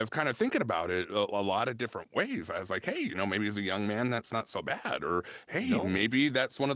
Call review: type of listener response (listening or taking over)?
listening